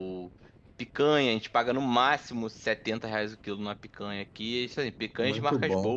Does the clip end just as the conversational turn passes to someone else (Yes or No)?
No